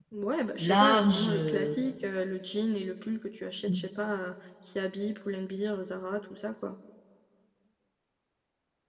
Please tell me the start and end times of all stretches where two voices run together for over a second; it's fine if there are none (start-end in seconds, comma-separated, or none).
0.6-1.9